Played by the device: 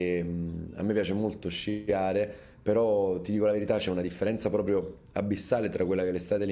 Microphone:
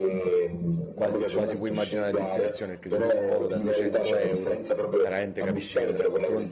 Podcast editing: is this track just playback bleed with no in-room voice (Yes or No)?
No